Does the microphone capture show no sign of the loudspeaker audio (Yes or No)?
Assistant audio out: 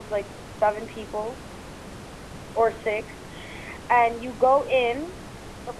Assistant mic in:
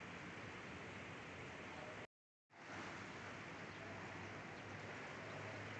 Yes